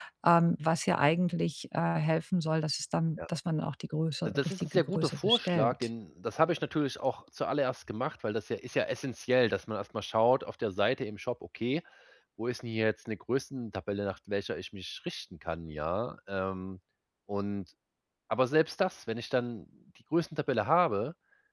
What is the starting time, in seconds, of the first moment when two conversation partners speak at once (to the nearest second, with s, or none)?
4 s